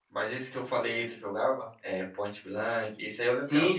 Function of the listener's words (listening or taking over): taking over